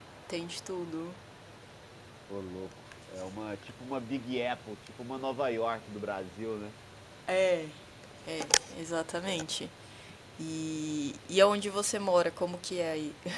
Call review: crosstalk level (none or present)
none